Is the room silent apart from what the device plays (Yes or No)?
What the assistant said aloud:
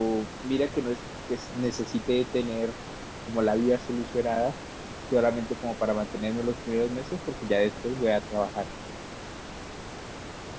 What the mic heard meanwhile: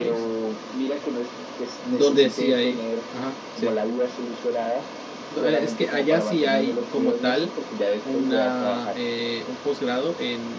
No